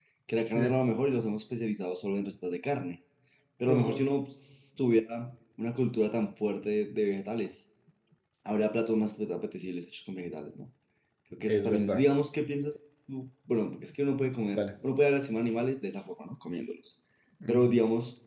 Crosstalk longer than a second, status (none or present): none